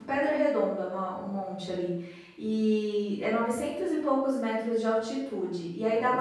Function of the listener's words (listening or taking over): listening